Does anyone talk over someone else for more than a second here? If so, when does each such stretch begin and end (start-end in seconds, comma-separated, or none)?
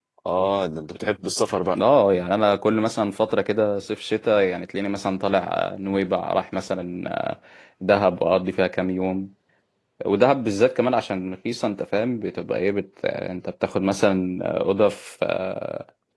none